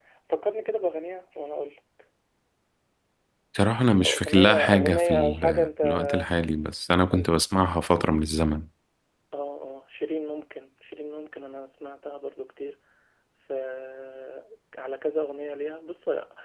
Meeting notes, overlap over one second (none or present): present